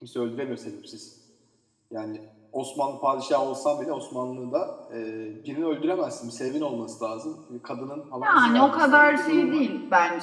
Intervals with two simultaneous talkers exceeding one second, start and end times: 8.2-9.7

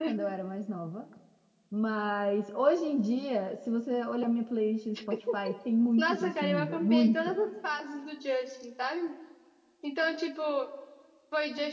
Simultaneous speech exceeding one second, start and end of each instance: 6.0-7.4

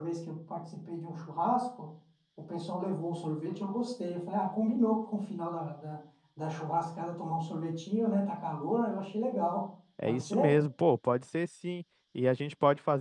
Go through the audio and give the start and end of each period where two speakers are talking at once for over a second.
none

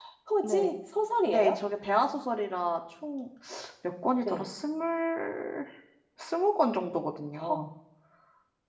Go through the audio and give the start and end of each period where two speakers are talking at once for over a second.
none

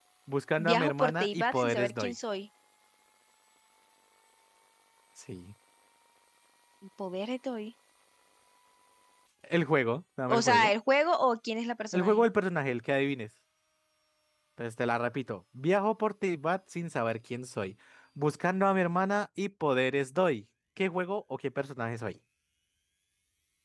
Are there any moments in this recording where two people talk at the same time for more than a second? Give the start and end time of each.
0.6-2.1

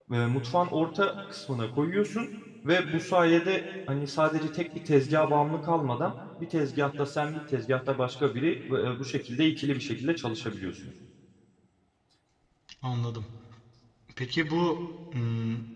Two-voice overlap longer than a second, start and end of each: none

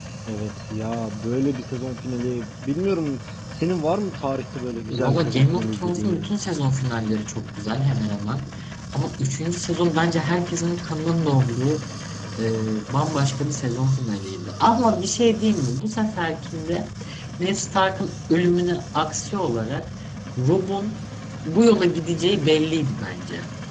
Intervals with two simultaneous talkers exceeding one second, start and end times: 4.9-6.3

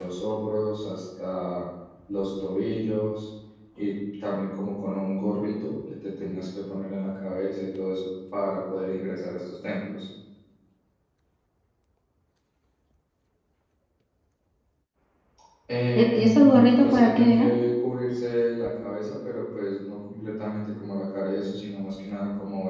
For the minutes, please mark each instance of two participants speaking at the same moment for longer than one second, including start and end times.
16.0-17.5

